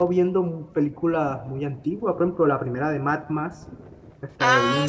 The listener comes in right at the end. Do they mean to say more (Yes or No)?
Yes